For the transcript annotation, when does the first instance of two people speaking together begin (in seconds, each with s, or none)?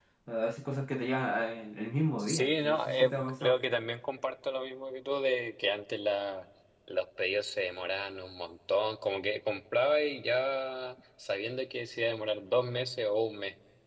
2.2 s